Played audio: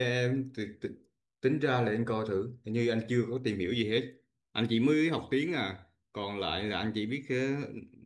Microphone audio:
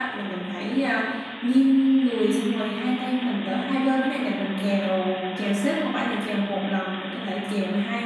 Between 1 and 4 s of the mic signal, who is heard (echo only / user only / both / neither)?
user only